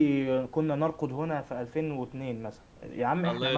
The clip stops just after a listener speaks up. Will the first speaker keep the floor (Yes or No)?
No